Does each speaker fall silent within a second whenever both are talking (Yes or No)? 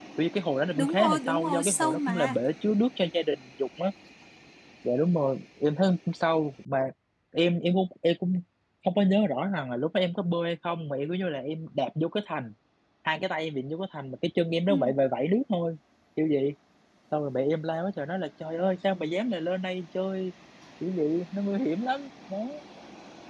No